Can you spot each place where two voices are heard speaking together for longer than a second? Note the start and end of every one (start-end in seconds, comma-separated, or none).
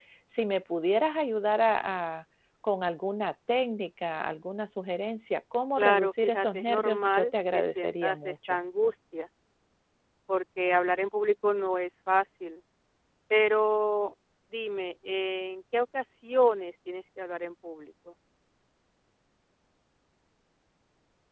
5.8-8.6